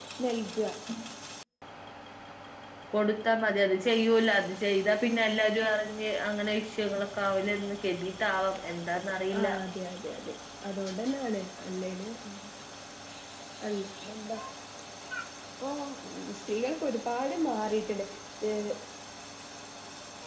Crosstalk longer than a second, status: none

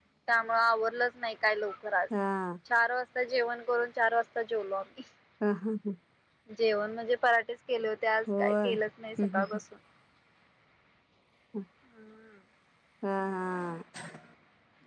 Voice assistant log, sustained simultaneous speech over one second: none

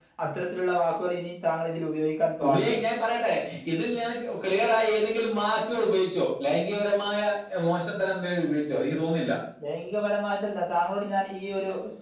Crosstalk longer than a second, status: none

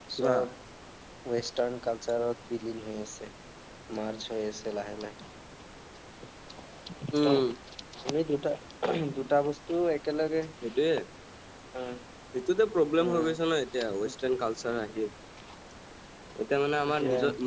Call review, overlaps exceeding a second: none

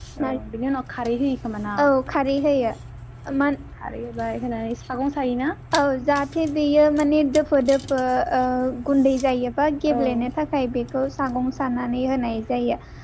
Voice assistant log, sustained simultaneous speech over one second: none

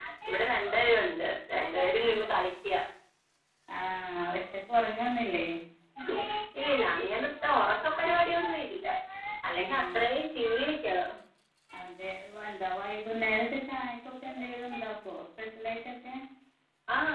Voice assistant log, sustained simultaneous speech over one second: none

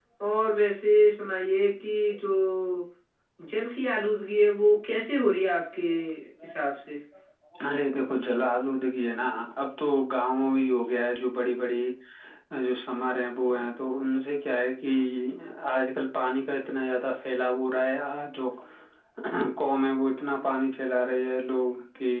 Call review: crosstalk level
none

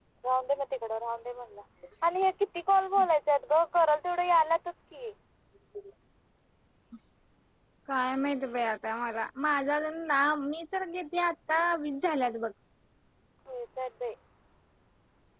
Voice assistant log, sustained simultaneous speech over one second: none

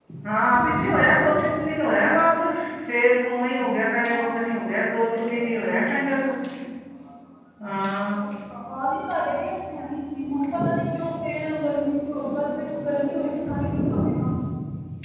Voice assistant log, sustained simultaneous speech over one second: present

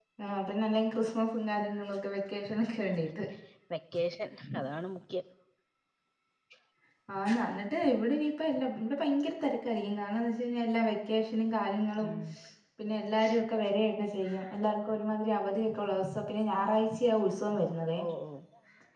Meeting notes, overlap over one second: none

